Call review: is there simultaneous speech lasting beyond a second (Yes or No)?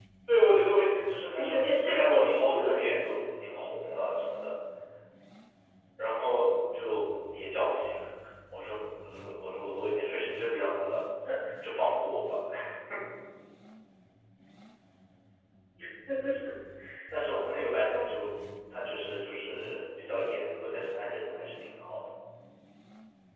Yes